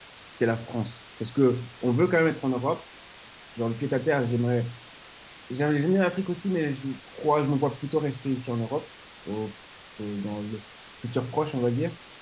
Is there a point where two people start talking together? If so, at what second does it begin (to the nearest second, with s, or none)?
none